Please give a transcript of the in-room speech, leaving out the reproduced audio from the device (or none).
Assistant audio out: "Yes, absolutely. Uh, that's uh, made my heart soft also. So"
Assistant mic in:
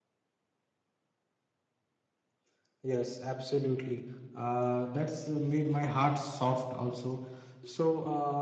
none